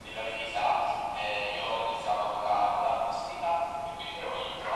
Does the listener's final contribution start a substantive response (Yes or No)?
No